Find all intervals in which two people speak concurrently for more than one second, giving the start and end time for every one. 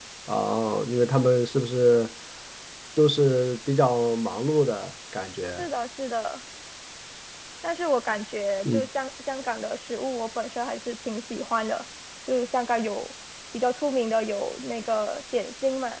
none

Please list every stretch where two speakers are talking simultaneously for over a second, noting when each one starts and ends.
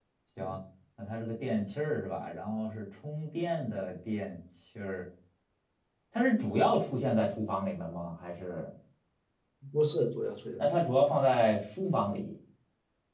none

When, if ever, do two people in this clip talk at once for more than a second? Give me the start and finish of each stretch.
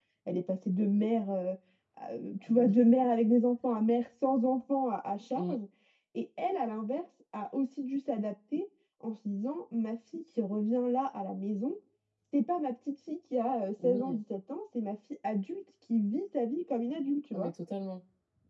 none

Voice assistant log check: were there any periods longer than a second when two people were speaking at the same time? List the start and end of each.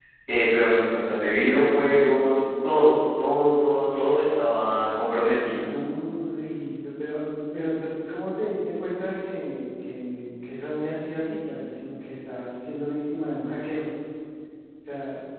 none

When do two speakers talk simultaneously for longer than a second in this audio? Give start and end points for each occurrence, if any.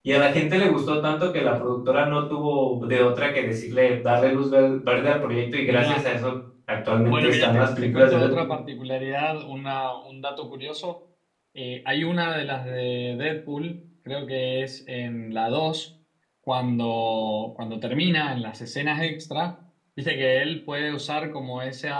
7.1-8.5

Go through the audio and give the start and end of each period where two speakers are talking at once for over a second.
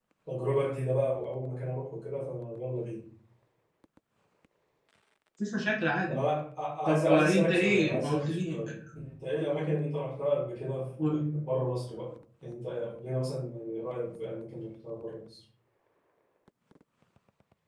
6.9-8.6

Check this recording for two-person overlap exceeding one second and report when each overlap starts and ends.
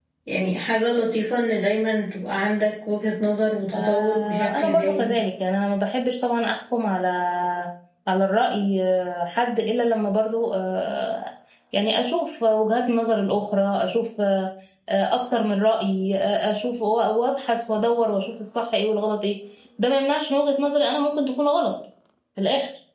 3.7-5.2

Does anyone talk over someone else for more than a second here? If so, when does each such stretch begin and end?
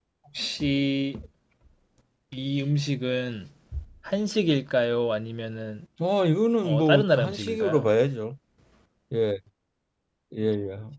6.6-7.9

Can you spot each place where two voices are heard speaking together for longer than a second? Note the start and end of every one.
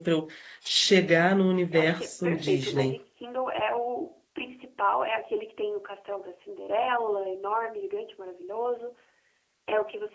1.7-3.0

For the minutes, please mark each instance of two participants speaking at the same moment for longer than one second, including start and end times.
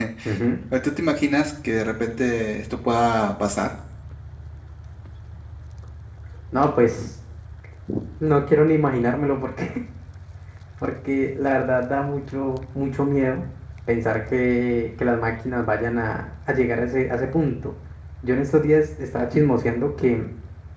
none

